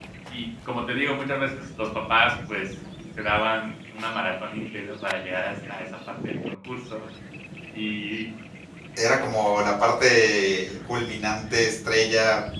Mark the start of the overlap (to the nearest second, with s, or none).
none